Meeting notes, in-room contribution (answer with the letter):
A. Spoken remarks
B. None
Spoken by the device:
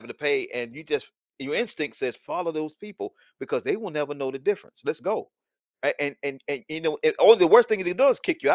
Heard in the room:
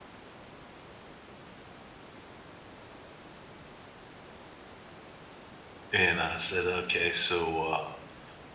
A